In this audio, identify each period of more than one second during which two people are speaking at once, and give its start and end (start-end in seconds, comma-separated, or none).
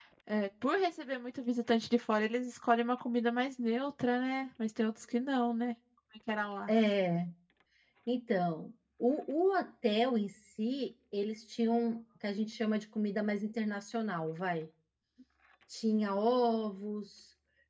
none